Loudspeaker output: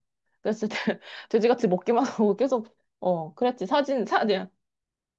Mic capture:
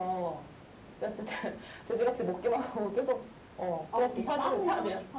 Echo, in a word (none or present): present